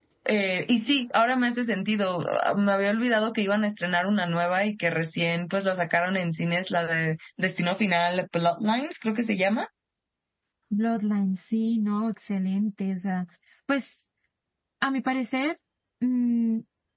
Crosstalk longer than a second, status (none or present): none